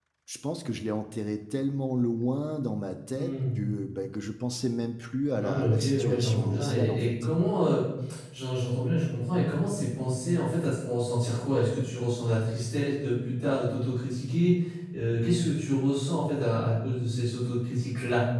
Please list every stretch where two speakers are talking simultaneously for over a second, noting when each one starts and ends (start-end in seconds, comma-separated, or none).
5.3-7.3